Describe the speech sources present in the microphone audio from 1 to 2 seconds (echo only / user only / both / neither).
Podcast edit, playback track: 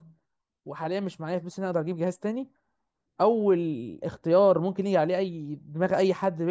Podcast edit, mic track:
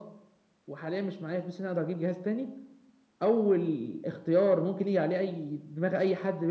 echo only